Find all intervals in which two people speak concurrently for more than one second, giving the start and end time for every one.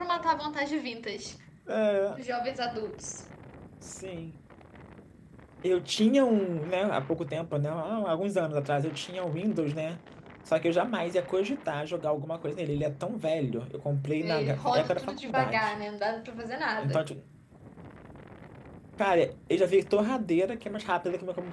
14.2-15.8

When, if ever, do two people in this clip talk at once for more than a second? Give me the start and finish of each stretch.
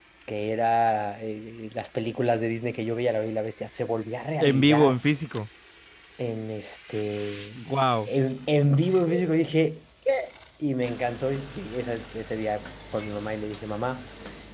none

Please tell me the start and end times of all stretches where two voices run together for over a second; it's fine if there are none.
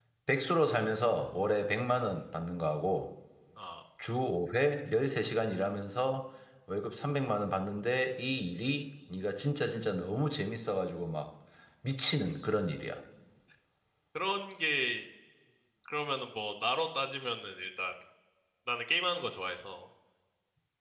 none

